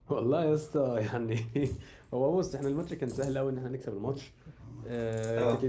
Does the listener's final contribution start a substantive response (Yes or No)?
No